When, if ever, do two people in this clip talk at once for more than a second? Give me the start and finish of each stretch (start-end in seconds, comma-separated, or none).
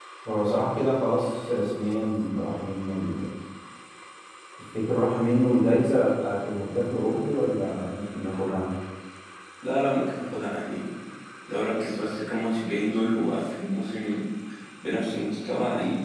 none